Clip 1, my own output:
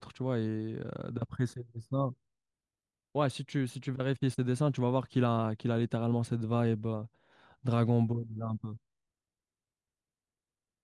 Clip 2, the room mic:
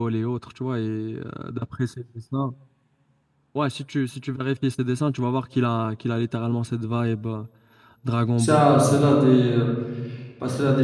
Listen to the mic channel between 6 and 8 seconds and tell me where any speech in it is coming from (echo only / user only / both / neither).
echo only